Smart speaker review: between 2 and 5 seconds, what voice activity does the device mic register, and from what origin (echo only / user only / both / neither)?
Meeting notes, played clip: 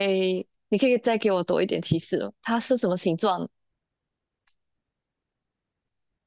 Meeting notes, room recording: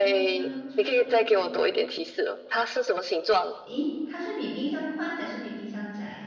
both